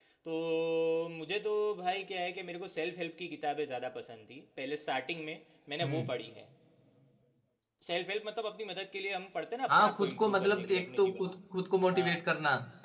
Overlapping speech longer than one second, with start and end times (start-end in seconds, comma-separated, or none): 9.7-11.3